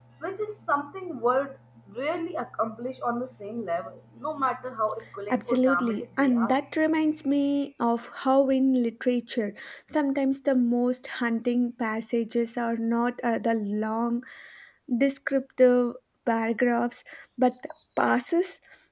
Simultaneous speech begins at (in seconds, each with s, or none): 5.3 s